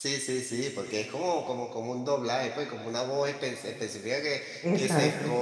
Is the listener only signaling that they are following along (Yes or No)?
Yes